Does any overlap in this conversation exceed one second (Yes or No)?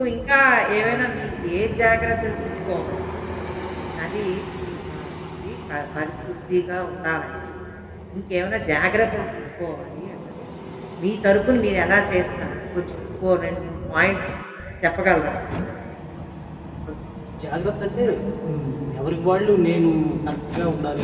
No